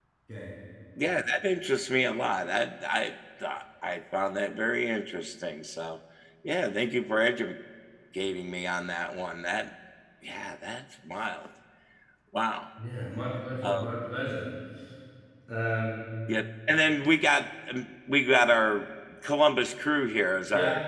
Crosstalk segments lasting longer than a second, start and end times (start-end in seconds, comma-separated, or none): none